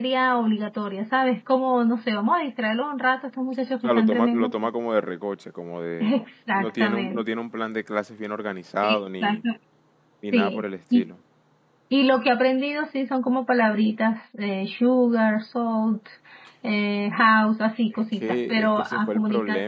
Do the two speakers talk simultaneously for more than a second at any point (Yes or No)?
Yes